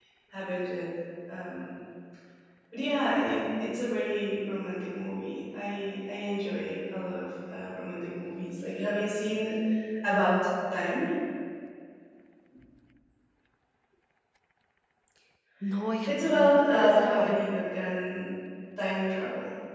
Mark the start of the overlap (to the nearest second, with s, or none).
16 s